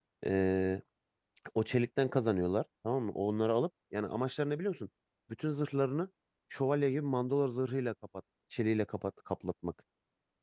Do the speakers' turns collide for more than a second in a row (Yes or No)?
No